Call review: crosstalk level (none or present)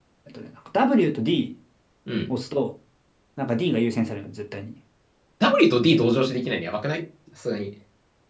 none